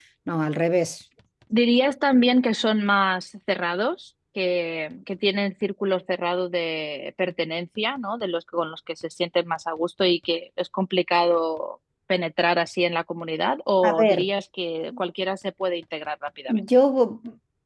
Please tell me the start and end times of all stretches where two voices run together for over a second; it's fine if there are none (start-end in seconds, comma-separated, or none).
none